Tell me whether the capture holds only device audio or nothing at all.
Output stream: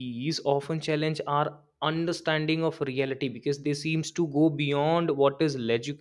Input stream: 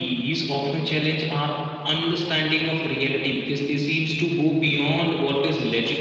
Yes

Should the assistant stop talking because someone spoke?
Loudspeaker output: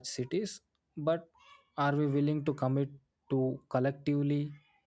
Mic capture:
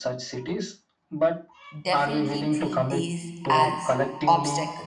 Yes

